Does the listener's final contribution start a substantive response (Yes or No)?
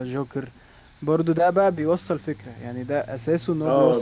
Yes